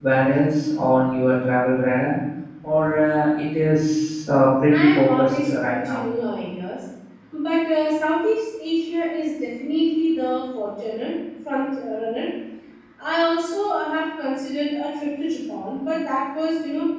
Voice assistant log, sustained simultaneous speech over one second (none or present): present